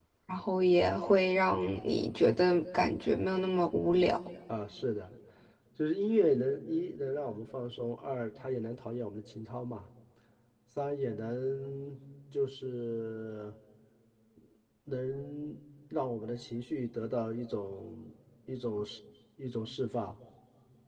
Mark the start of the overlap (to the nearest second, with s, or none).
none